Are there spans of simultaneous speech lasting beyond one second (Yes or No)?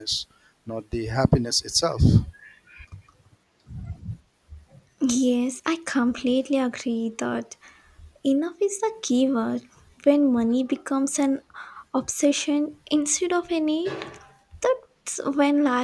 No